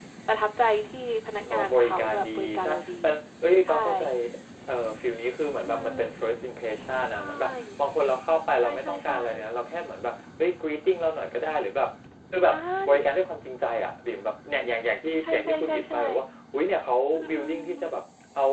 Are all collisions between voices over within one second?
No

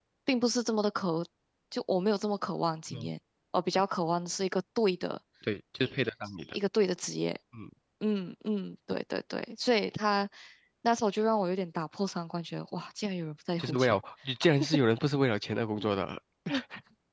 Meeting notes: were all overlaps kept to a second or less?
Yes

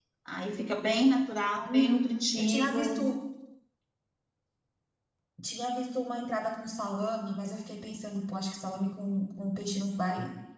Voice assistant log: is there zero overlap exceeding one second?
No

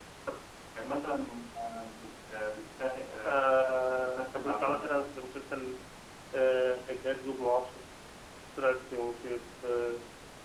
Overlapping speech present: Yes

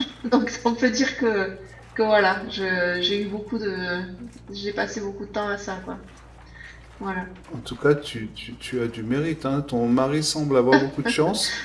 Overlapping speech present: No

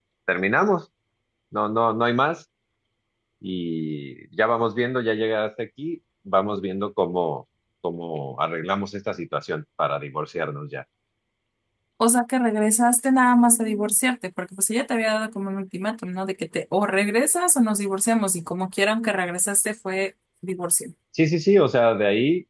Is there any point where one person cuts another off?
No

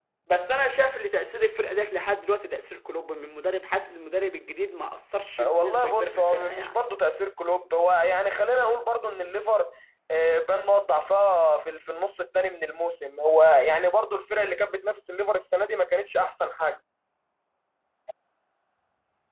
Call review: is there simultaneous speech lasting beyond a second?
Yes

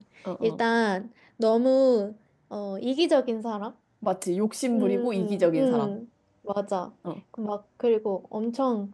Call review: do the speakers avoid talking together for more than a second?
No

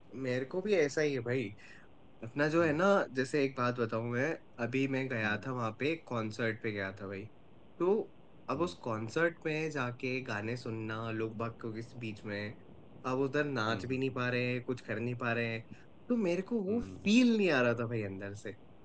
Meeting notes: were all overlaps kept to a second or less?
Yes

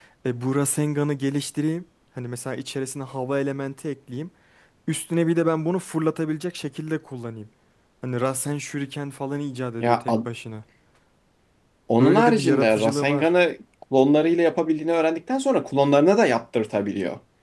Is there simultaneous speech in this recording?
Yes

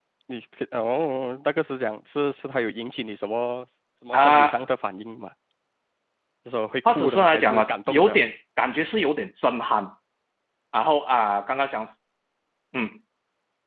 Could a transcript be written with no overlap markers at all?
No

